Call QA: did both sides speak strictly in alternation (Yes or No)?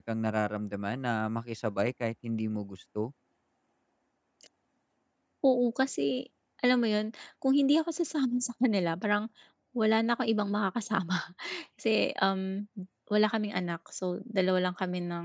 Yes